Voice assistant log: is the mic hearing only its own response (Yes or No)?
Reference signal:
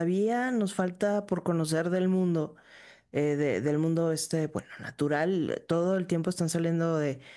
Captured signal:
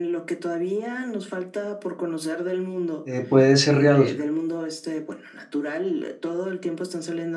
No